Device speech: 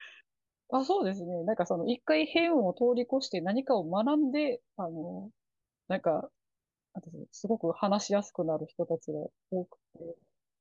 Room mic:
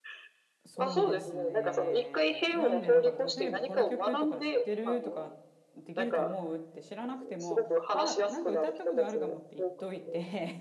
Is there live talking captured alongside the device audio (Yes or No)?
Yes